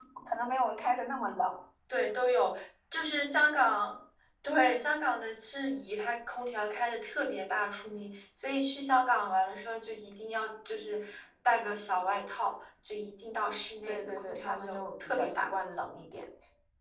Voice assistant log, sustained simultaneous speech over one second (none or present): present